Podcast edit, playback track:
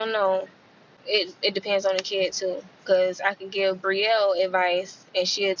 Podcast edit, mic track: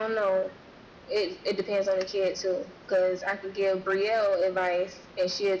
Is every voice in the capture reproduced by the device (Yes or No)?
Yes